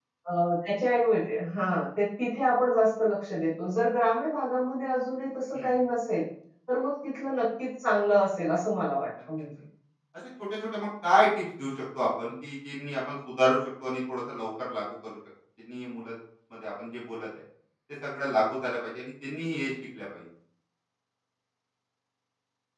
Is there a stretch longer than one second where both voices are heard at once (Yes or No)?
No